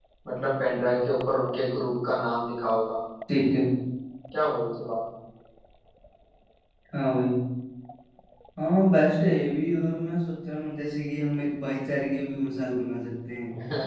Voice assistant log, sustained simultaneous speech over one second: none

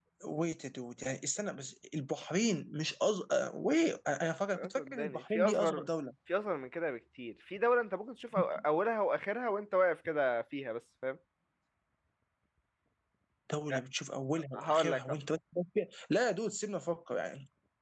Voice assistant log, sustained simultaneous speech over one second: present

